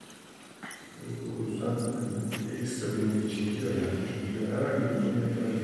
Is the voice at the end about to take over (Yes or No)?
No